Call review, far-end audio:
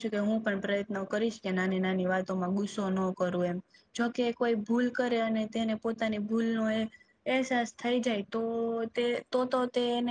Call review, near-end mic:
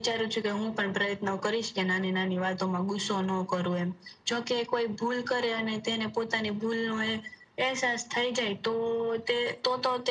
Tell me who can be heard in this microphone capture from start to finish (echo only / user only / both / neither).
echo only